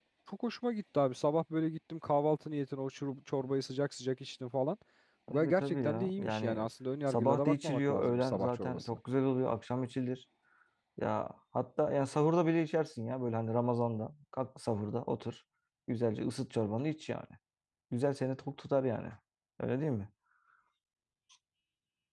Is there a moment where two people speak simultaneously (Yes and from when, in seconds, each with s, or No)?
Yes, from 5.3 s